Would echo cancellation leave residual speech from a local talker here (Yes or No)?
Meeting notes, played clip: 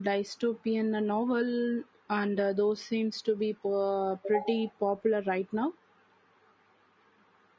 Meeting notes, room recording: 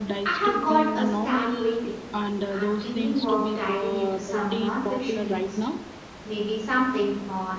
Yes